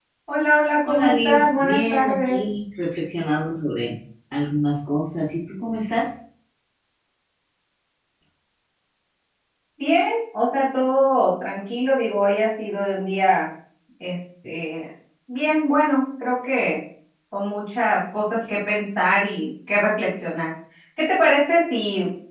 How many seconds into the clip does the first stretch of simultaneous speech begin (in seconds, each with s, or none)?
0.9 s